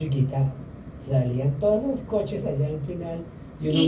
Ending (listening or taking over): taking over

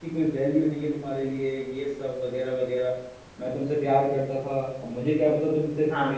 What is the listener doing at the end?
listening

